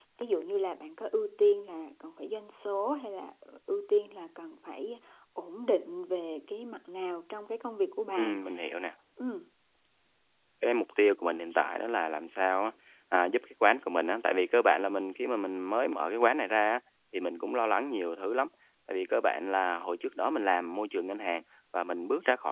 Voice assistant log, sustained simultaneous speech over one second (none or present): none